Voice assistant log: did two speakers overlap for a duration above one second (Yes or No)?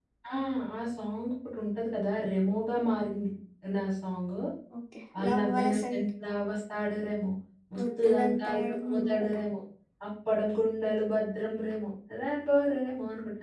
Yes